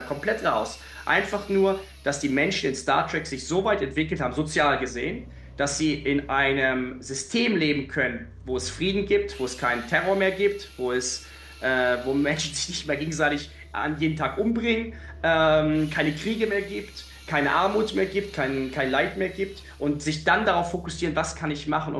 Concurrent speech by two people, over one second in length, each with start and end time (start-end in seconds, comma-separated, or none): none